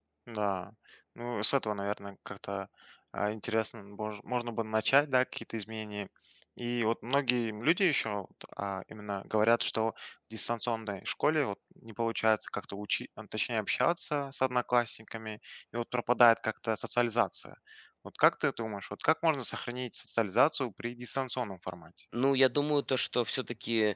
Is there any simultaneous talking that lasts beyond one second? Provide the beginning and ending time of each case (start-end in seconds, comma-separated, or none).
none